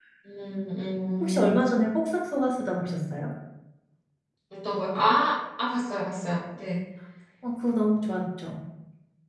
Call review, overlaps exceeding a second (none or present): none